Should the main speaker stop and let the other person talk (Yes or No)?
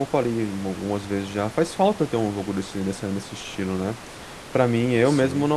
No